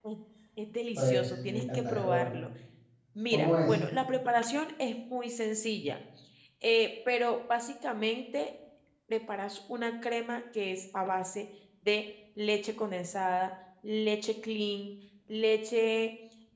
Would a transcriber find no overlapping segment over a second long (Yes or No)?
No